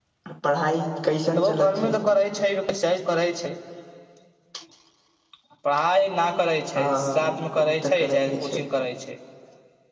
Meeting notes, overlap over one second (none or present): present